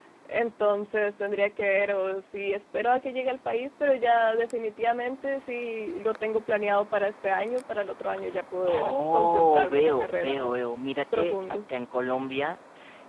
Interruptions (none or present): present